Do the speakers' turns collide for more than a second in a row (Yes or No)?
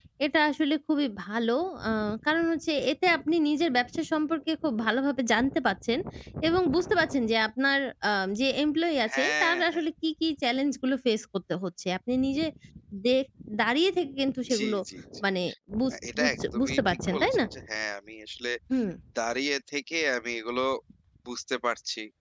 Yes